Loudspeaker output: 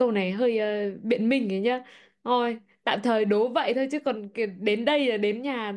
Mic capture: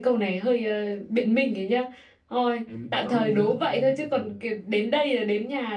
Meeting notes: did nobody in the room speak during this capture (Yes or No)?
No